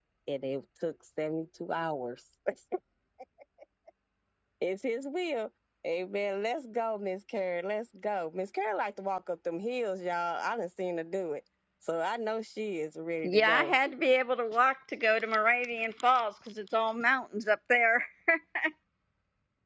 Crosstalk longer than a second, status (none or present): none